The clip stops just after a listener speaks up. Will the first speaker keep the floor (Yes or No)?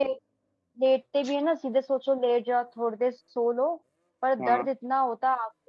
Yes